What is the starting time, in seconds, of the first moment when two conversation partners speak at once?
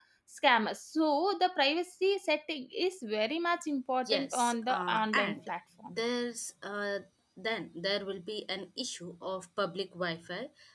4 s

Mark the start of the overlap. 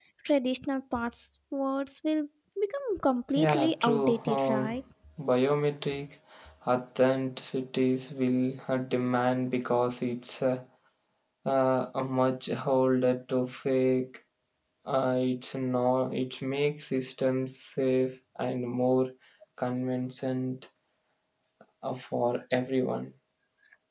3 s

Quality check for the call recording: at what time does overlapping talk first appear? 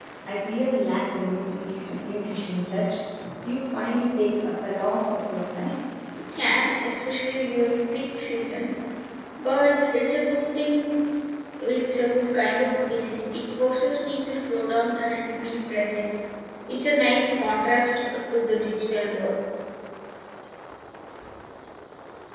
none

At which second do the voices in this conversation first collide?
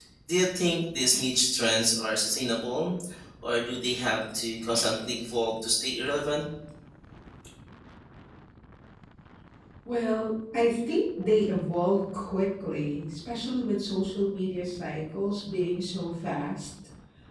none

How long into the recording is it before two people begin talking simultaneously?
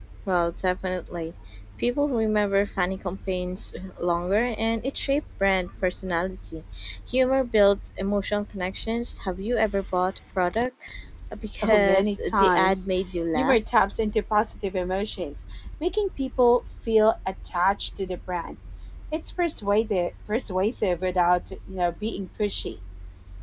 12 s

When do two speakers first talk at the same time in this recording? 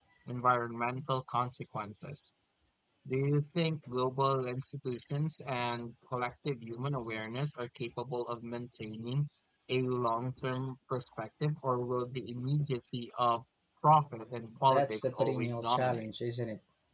15 s

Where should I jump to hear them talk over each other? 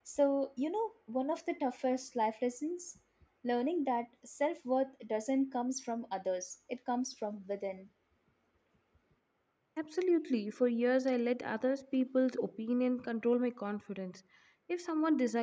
none

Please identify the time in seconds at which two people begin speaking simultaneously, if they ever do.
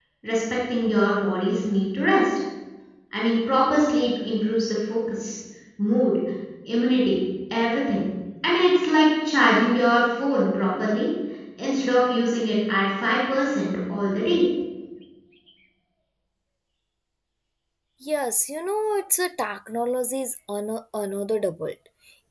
none

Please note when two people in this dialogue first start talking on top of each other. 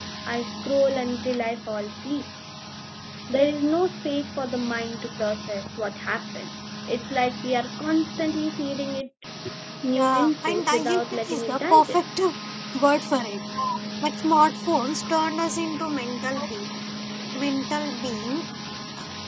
10 s

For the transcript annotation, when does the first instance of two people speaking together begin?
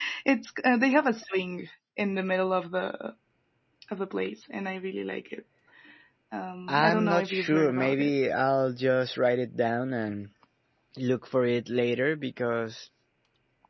7 s

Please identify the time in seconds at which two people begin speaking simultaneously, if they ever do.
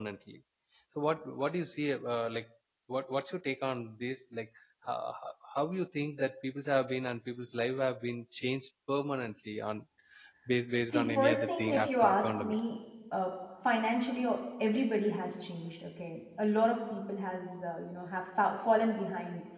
11 s

